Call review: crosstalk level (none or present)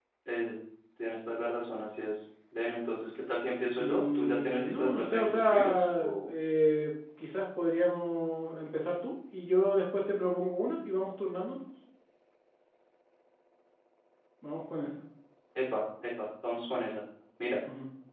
present